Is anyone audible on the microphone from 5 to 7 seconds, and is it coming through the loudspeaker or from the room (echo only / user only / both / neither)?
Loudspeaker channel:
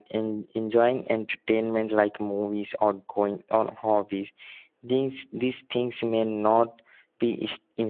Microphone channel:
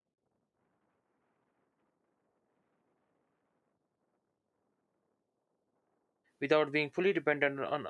user only